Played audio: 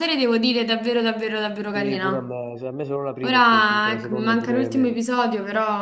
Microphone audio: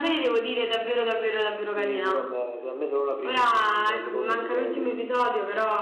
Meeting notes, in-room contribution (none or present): none